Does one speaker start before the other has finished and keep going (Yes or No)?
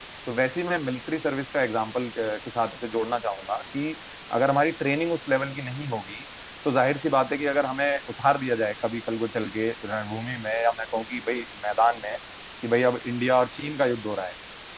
No